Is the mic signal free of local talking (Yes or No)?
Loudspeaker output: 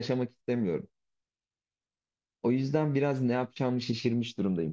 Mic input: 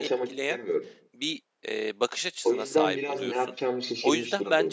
No